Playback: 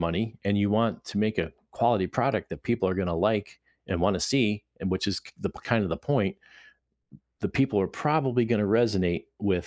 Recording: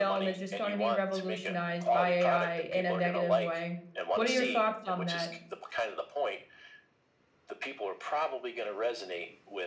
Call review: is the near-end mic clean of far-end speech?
No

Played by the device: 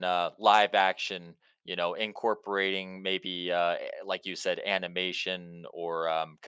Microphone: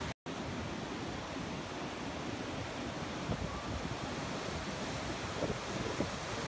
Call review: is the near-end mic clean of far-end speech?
Yes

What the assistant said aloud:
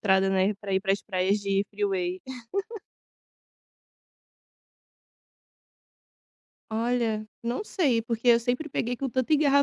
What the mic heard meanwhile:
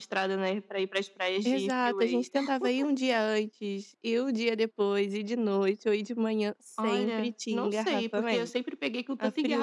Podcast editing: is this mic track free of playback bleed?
No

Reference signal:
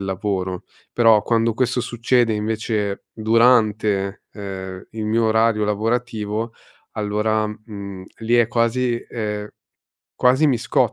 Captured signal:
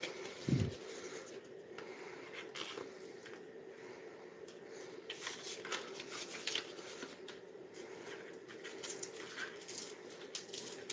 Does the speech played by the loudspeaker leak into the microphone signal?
No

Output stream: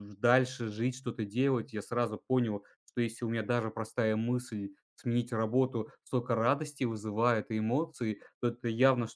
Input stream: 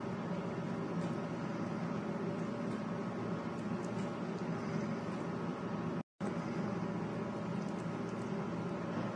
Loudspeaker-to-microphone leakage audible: No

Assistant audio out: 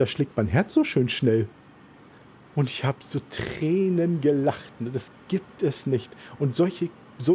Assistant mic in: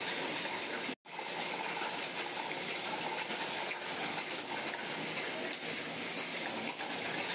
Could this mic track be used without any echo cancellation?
Yes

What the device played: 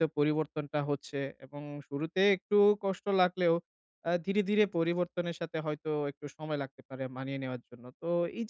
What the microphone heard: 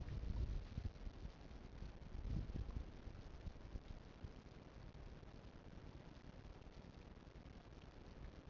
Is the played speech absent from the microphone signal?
Yes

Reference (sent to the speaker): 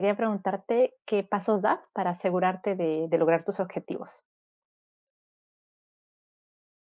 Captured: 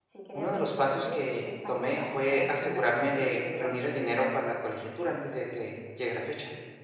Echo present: Yes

